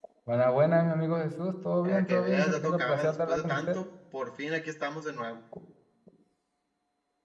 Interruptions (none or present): present